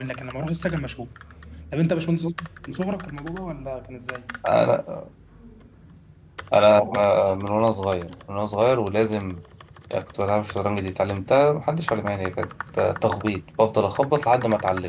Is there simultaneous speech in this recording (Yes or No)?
No